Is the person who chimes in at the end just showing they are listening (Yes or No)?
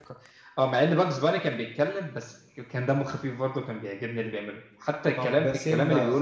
No